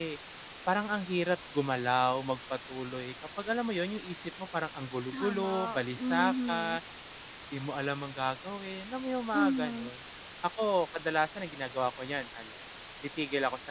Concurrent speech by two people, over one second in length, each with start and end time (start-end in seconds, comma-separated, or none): 5.1-6.8